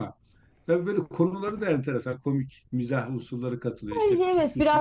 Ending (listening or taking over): taking over